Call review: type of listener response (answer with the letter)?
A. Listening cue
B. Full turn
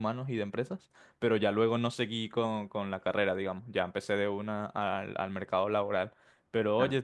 A